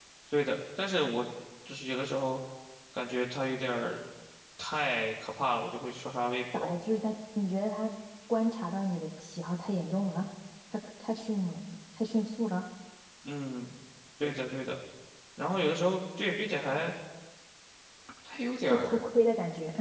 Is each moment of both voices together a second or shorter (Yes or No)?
Yes